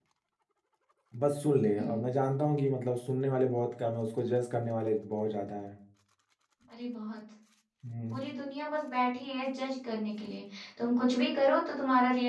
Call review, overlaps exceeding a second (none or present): none